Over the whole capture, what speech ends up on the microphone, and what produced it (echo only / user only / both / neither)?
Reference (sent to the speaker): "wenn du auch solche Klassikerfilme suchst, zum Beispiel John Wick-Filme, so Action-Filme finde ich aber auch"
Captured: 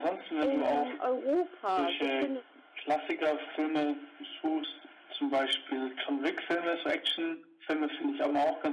both